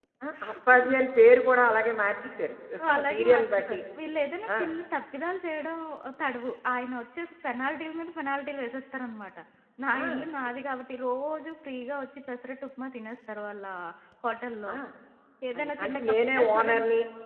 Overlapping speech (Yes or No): Yes